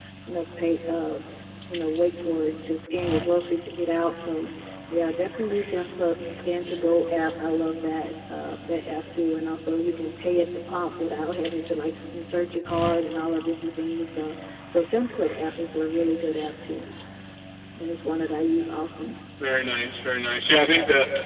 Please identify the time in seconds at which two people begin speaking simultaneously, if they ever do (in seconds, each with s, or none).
none